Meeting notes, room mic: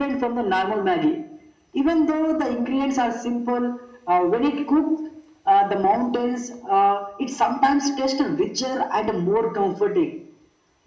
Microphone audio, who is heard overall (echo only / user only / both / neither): echo only